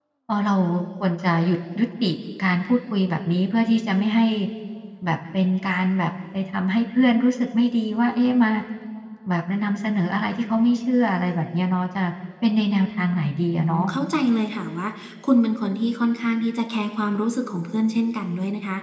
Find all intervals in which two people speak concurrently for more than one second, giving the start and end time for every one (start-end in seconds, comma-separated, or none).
none